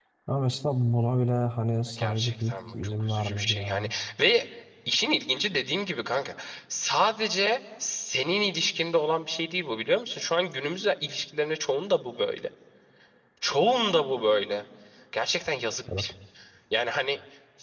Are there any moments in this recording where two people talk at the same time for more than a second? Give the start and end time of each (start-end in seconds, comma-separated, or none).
2.0-3.8